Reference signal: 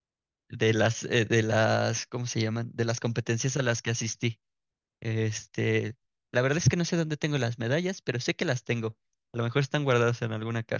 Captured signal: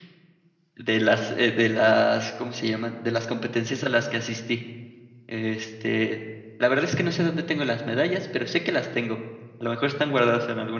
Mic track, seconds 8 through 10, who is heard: echo only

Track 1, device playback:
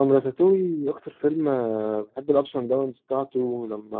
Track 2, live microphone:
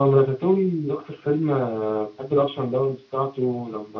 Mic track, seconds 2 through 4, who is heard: echo only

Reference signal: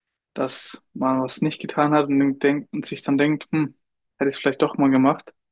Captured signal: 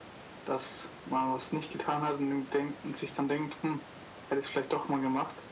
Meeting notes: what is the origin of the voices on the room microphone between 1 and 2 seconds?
echo only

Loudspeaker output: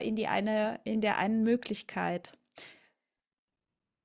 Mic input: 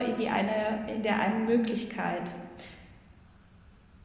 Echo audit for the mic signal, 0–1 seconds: echo only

